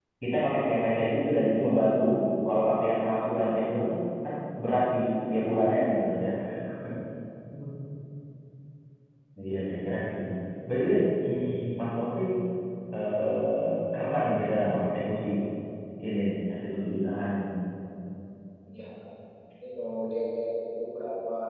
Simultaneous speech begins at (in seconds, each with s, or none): none